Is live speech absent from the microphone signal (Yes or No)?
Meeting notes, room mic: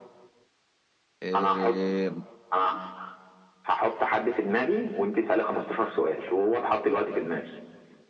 No